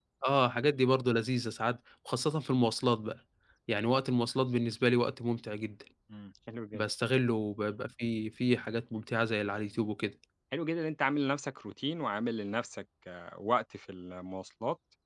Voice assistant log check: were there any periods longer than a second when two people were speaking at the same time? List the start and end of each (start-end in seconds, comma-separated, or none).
none